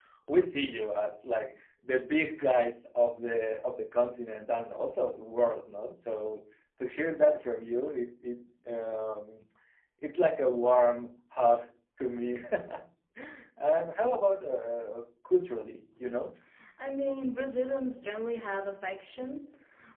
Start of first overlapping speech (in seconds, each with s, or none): none